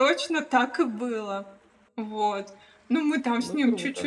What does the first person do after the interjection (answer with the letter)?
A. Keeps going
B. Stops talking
A